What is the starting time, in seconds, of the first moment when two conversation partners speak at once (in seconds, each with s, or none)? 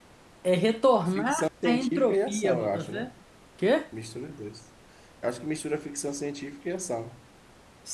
1.1 s